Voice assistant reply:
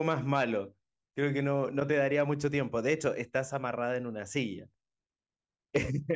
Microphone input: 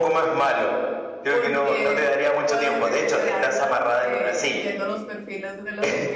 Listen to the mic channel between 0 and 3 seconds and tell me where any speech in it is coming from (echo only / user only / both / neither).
both